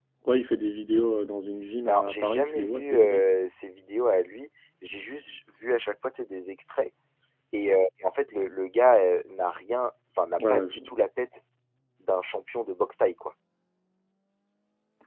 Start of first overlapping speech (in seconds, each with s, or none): 1.9 s